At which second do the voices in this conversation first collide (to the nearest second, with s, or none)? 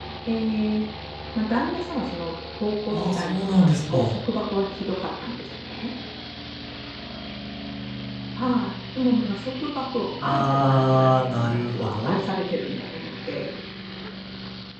3 s